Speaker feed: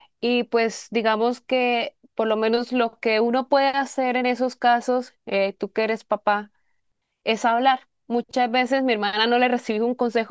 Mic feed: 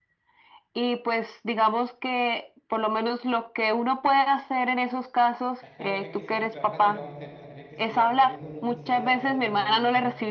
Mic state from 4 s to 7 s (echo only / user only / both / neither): both